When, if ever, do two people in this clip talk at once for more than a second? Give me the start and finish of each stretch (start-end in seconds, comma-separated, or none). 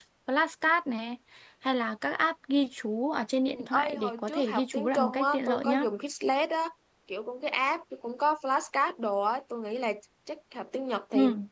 3.5-5.9